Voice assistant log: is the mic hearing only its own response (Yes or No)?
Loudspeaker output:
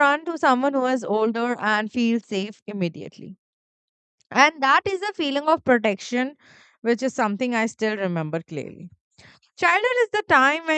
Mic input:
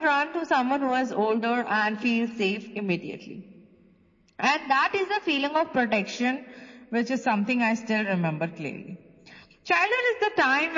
Yes